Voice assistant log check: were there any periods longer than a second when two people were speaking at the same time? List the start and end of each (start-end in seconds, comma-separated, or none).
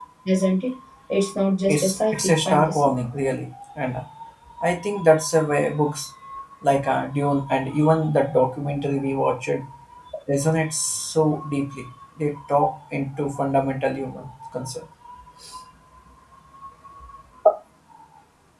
1.7-2.9